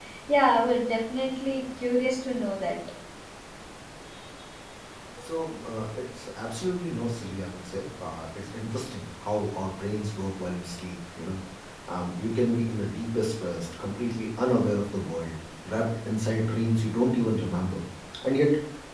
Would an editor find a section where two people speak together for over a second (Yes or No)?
No